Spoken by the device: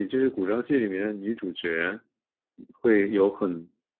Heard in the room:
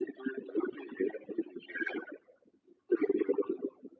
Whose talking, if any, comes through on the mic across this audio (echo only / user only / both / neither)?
echo only